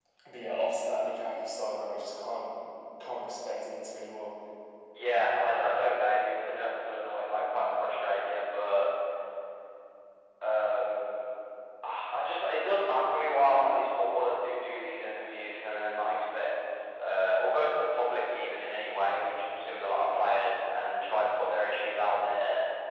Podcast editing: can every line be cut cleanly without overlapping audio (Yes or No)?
Yes